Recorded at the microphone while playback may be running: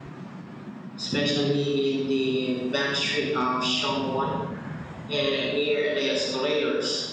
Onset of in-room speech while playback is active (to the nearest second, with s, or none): none